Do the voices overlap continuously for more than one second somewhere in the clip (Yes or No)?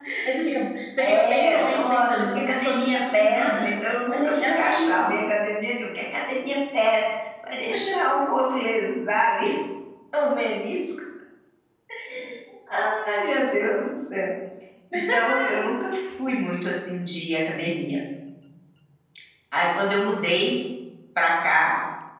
Yes